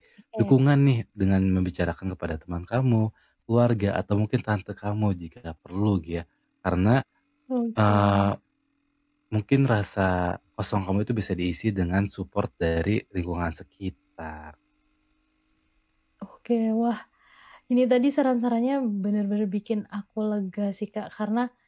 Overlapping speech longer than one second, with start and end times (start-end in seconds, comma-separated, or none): none